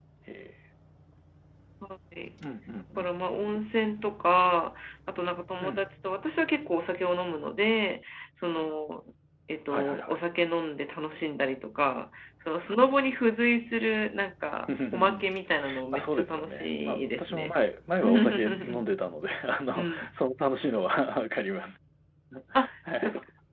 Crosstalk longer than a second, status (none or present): present